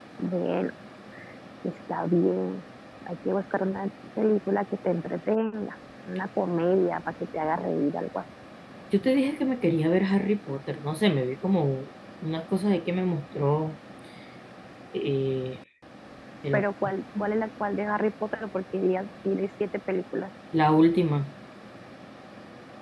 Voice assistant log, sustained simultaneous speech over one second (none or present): none